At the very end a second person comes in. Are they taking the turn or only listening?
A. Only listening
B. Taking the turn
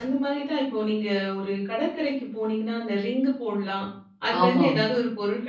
A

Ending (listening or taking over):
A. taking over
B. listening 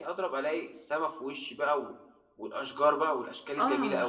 A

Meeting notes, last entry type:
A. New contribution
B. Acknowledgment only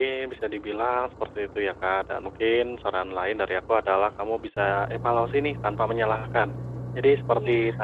B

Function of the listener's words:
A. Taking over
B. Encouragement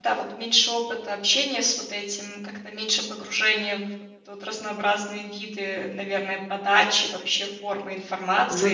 A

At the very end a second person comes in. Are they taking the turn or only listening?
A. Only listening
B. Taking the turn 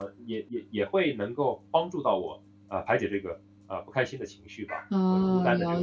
B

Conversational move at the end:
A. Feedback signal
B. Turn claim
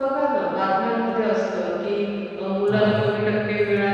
A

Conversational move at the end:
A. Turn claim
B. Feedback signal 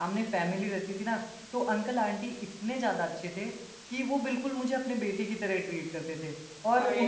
B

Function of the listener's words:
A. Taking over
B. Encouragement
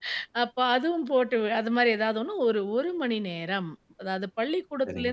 B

